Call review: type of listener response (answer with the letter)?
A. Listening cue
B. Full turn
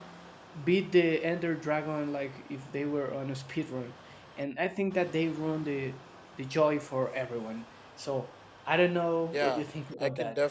B